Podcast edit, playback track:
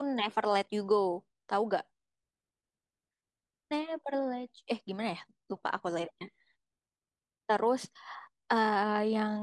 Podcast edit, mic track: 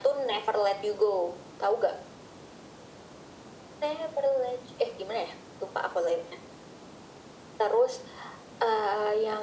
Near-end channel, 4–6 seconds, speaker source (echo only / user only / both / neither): echo only